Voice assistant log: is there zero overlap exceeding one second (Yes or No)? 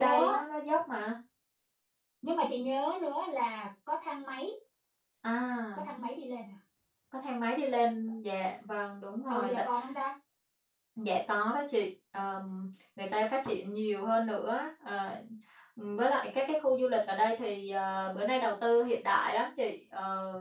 Yes